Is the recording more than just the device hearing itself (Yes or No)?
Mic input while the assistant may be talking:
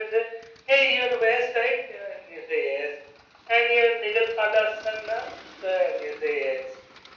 No